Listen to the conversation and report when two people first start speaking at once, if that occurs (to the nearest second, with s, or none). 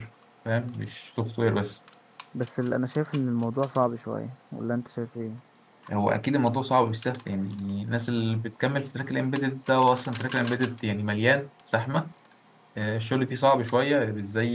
none